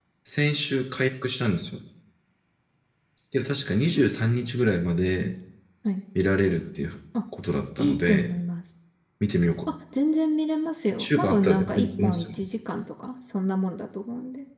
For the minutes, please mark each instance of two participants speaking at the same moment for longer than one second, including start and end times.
11.0-12.4

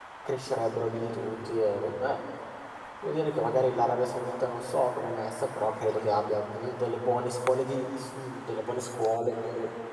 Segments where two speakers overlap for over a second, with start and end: none

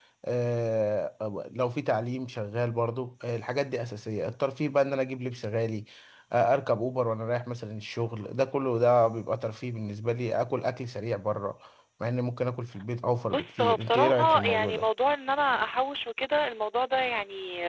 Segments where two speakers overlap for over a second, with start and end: 13.3-14.9

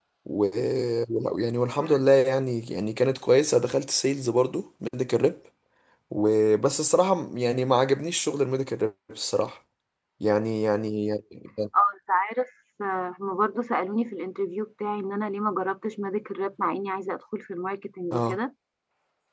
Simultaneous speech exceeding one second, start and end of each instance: none

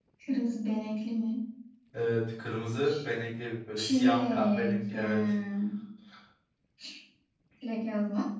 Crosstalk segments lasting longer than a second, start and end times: 3.8-5.2

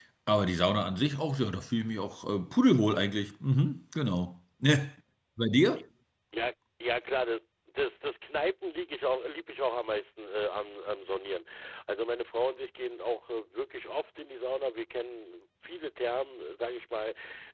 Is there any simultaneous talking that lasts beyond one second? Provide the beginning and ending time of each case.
none

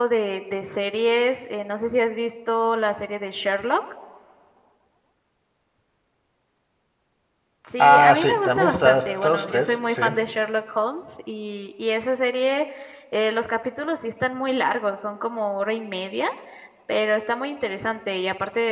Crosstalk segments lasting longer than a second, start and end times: 7.8-10.0

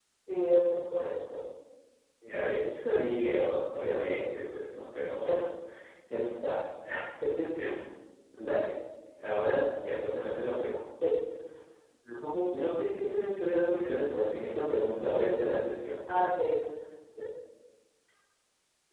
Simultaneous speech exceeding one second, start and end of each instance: none

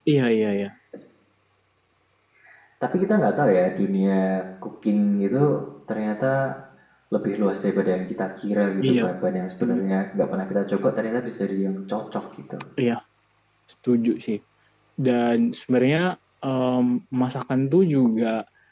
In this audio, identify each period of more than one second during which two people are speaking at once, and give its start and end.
none

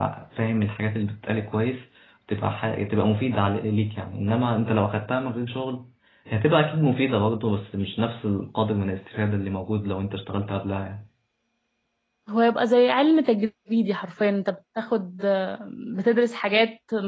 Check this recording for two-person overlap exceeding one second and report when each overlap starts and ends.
none

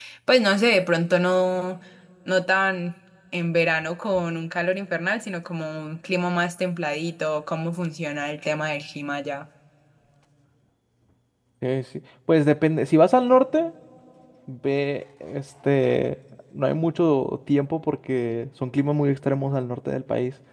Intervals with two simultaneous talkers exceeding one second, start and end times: none

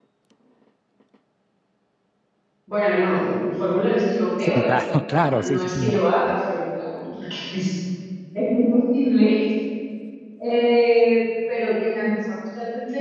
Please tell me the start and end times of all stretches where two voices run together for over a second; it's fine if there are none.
4.4-6.0

